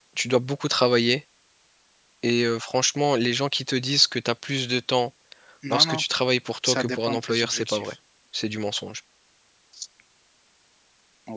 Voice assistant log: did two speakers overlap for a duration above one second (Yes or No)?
Yes